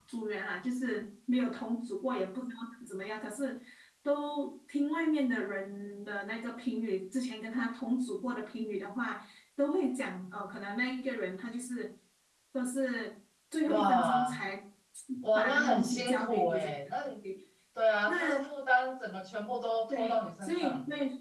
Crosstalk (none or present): present